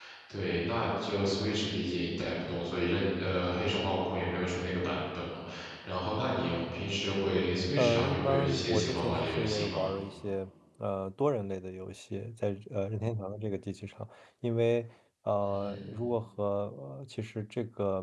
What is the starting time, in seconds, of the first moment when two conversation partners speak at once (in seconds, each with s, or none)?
7.8 s